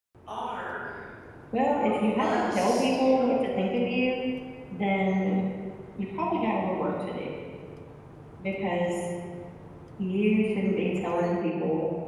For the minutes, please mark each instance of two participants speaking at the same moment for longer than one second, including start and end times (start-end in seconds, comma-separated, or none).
1.9-3.3